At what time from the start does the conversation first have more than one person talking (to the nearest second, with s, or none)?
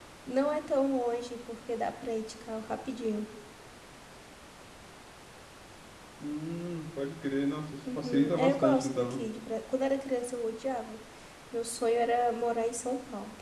8 s